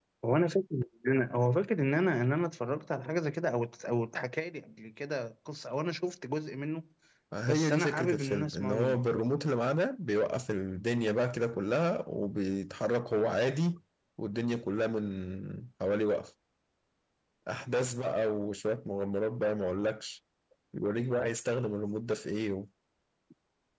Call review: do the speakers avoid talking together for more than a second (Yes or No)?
No